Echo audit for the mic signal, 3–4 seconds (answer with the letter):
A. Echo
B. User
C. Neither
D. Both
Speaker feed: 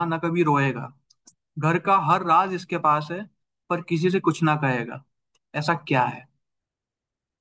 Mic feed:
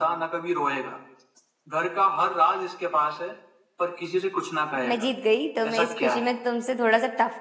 A